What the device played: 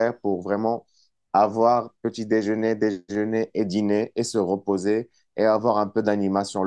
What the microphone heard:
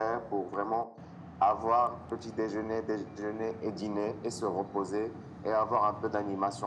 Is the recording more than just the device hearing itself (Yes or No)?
No